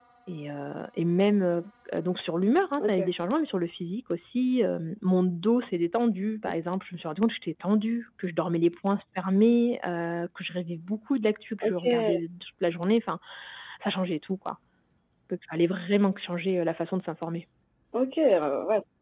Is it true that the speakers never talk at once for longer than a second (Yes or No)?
Yes